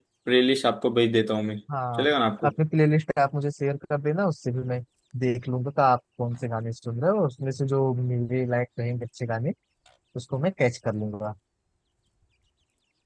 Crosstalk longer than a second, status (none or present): none